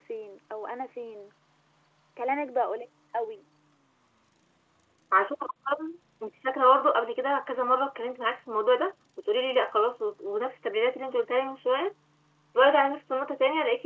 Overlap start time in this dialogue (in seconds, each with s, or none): none